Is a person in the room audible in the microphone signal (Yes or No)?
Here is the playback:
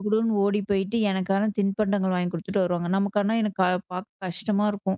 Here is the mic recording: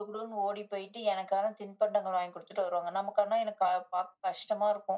No